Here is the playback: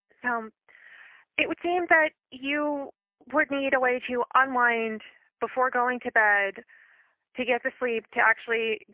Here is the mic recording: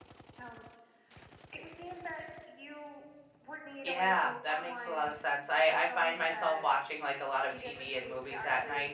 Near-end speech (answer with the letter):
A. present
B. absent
A